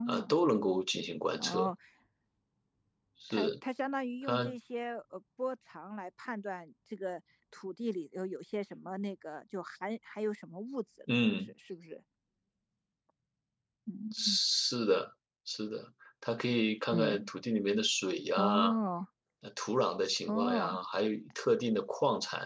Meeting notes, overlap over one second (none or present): none